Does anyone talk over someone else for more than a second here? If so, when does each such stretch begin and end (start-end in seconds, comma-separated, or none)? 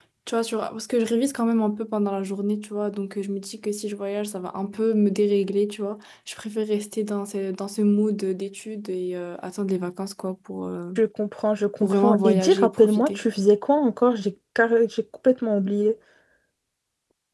11.8-13.2